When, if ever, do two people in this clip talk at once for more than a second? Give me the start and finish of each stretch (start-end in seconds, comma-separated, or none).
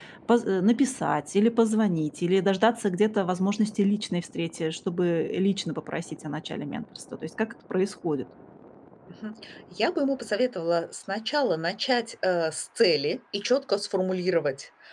none